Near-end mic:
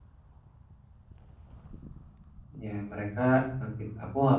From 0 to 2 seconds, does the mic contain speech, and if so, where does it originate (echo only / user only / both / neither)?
neither